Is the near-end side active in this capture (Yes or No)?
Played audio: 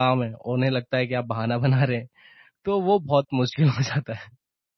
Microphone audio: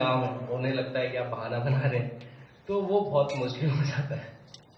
No